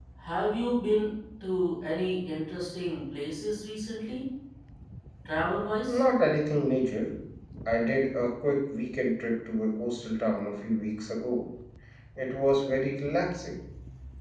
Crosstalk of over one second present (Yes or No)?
No